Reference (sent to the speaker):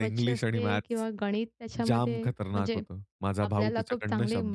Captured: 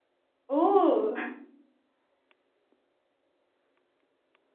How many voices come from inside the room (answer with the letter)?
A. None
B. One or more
B